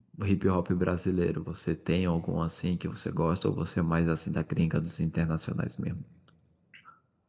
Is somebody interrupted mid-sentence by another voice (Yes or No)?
No